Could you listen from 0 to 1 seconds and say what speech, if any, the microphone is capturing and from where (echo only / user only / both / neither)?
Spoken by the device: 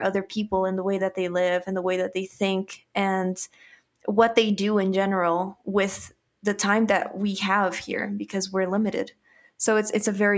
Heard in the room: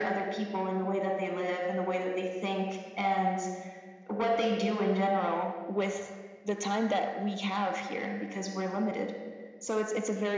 echo only